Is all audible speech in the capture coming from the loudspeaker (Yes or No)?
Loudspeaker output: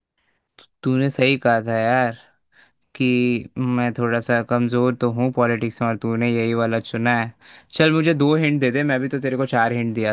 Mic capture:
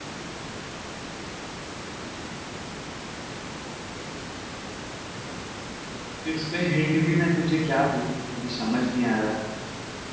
No